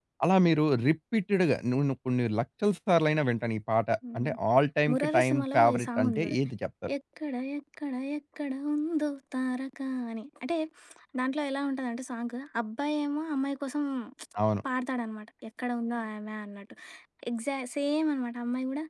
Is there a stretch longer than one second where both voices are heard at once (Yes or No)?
Yes